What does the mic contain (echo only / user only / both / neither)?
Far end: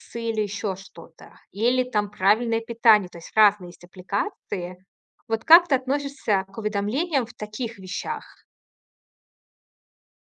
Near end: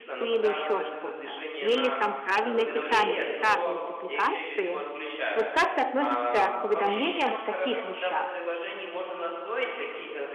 both